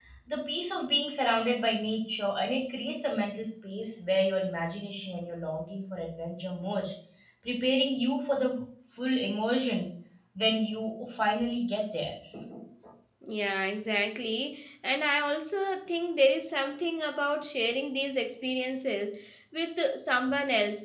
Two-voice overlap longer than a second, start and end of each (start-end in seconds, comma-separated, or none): none